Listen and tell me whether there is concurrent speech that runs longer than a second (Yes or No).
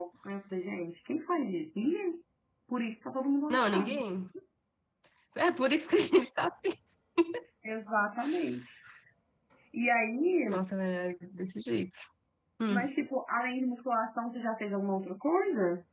No